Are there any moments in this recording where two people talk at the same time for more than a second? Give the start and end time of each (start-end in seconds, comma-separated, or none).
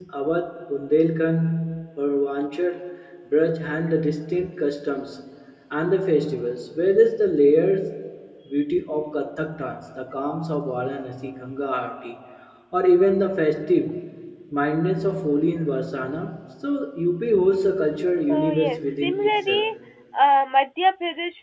18.3-19.6